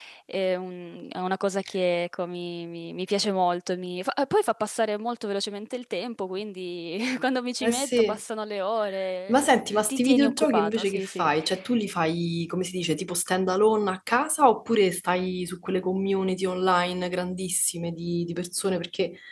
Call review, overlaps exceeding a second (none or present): present